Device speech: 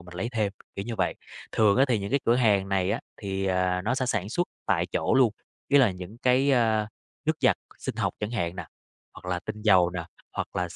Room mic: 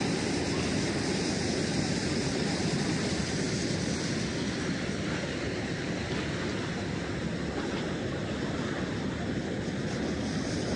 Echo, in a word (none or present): none